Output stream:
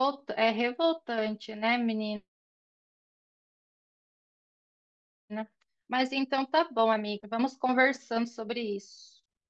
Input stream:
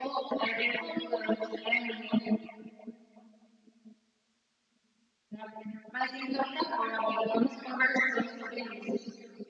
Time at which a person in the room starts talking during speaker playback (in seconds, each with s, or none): none